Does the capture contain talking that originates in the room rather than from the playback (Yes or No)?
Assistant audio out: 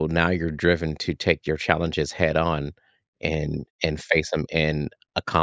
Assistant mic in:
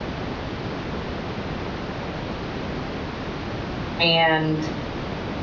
Yes